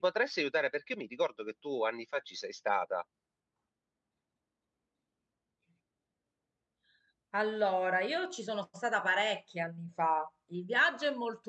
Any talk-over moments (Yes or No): No